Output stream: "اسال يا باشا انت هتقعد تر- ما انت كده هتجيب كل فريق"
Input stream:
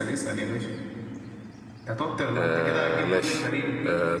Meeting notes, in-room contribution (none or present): present